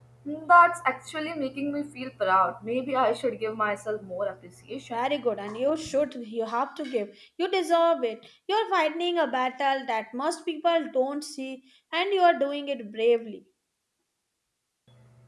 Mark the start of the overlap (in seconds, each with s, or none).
none